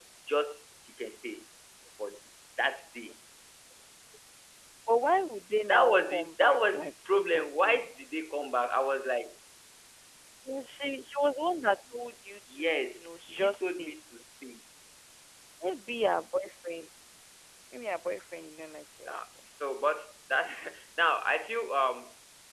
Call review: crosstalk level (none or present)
present